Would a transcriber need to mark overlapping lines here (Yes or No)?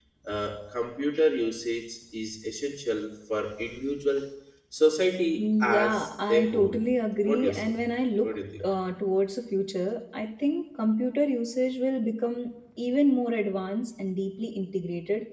Yes